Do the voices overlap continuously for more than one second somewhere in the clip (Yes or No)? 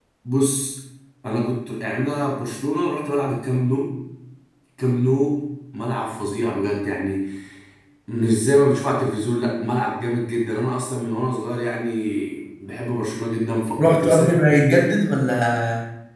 Yes